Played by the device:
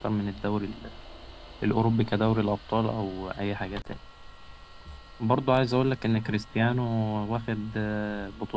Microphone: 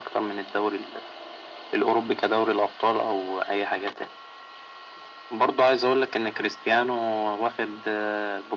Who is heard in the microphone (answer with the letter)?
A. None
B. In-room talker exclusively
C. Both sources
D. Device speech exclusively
D